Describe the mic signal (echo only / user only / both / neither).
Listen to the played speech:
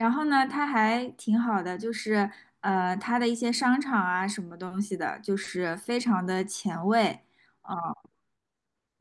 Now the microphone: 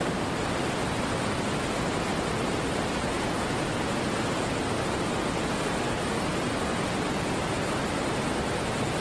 neither